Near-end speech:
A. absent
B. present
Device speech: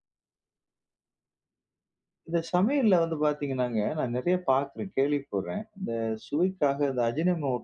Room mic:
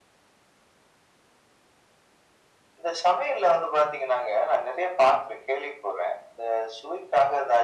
A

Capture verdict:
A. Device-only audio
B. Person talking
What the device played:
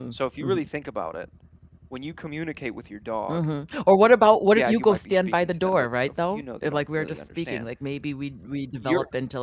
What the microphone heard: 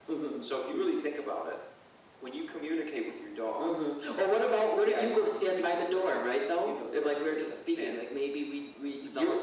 A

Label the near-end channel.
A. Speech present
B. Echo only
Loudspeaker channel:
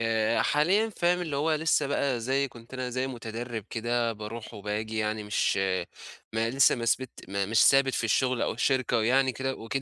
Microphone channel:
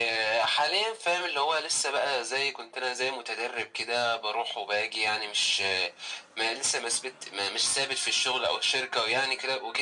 B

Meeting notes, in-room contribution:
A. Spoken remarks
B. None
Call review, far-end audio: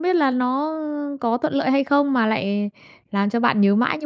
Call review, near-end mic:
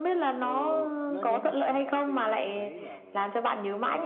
A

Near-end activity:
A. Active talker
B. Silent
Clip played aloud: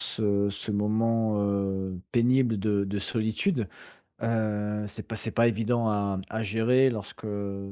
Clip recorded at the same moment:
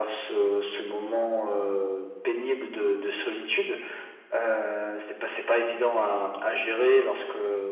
B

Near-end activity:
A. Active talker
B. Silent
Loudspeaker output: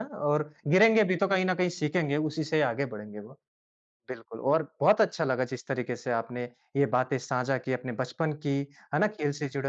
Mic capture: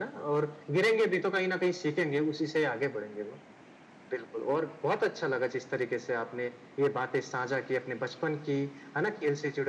B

